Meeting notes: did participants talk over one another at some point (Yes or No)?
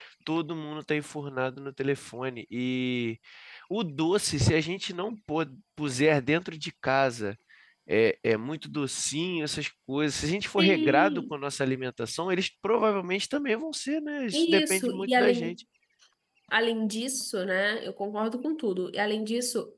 Yes